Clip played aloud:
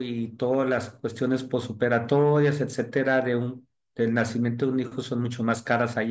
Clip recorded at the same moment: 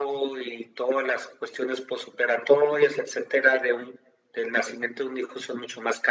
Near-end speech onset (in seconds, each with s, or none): none